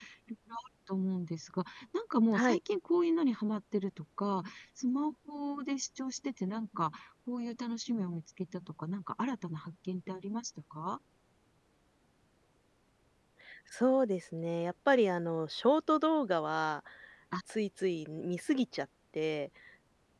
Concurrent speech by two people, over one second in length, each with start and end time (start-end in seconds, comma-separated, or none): none